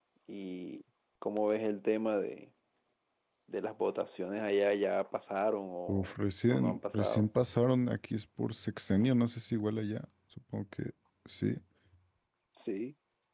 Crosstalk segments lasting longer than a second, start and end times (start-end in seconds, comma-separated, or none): 5.9-7.3